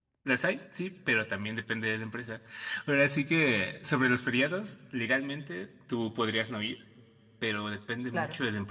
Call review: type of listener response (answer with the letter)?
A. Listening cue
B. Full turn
A